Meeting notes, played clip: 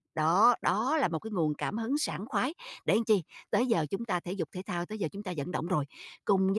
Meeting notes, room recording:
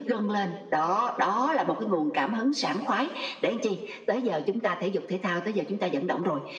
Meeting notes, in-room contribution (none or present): none